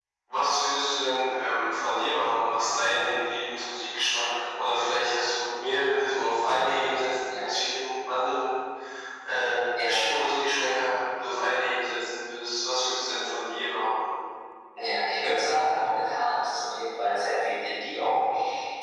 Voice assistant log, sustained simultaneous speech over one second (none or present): none